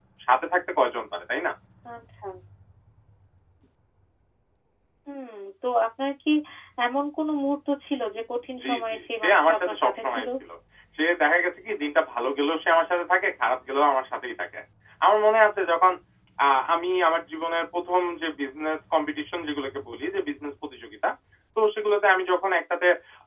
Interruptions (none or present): present